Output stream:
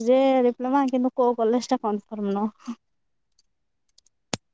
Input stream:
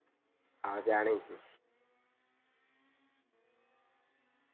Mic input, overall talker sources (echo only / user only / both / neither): user only